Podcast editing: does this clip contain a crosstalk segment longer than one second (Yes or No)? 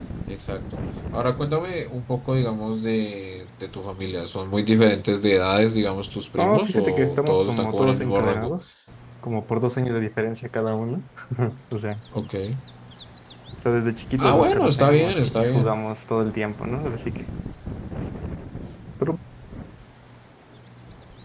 Yes